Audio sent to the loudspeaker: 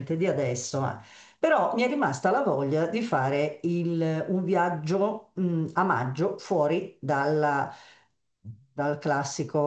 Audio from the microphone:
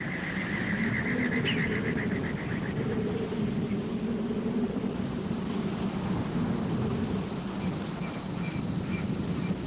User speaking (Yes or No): No